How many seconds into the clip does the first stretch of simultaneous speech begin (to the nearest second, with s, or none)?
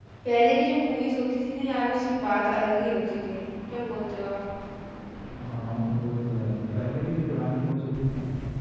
none